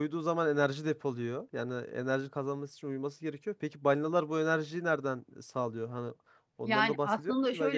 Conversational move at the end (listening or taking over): taking over